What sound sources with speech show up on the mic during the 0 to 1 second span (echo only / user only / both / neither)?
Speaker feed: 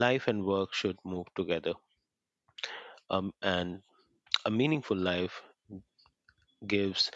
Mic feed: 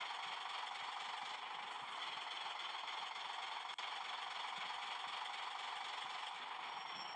neither